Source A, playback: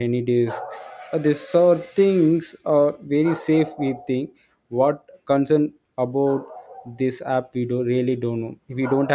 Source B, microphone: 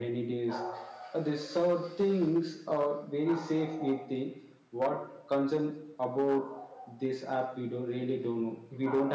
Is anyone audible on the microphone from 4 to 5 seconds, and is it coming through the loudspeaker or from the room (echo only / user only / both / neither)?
echo only